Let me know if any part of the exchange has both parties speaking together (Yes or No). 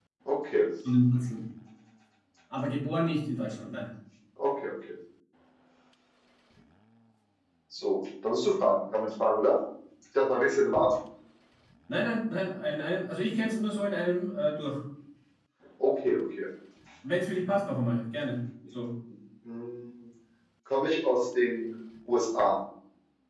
No